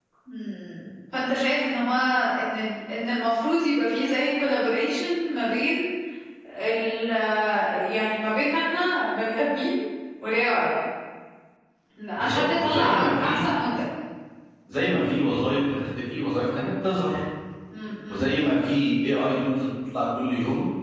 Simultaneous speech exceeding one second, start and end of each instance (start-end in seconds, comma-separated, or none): 12.2-13.5